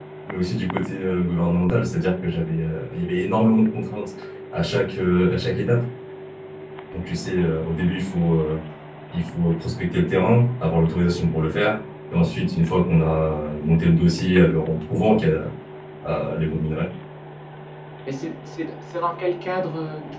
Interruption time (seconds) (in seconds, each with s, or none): none